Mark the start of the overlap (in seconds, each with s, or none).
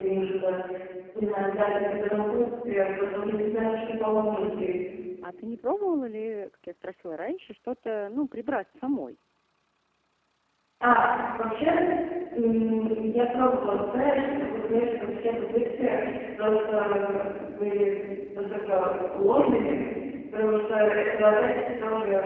none